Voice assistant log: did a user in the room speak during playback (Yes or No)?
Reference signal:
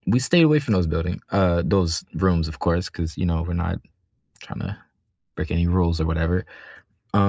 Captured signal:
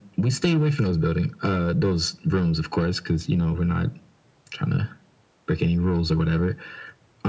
No